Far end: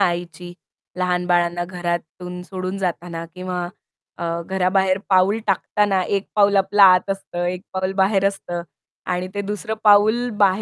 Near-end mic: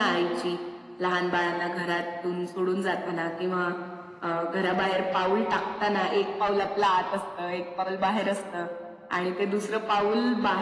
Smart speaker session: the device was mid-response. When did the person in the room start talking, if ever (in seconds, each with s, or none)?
none